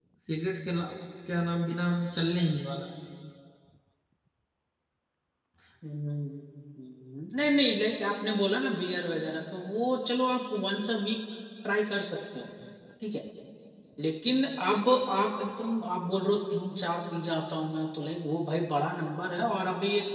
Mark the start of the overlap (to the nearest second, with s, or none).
none